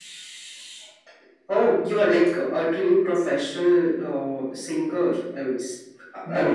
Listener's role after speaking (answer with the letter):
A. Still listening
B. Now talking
B